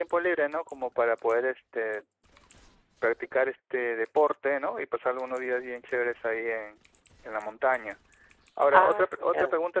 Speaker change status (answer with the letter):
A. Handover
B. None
B